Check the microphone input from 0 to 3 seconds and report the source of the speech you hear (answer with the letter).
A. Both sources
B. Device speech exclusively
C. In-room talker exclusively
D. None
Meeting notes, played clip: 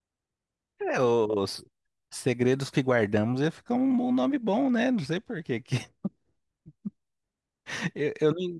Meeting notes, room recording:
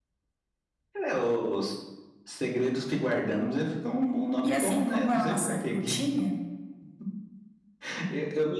B